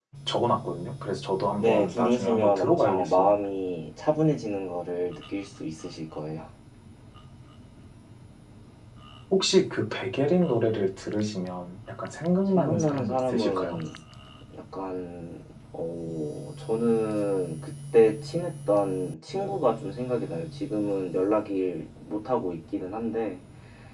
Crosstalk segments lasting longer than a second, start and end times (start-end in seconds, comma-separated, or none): 1.6-3.4, 12.5-13.8